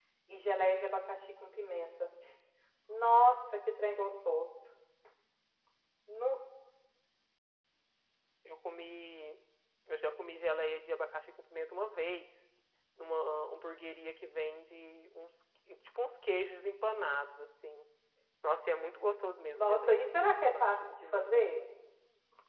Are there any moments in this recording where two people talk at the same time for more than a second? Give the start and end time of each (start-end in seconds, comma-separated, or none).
19.5-21.3